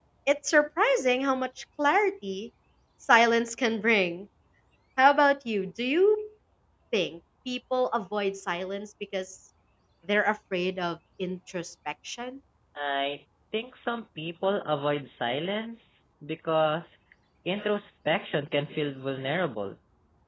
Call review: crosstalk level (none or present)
none